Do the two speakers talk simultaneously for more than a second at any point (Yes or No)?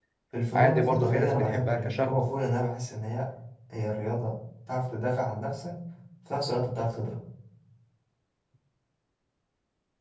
Yes